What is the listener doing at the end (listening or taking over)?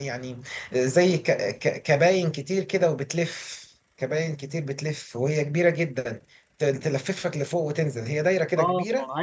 taking over